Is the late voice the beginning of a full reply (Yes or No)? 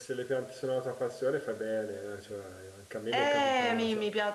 Yes